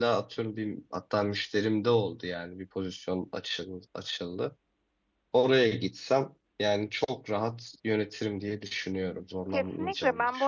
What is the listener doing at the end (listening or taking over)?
taking over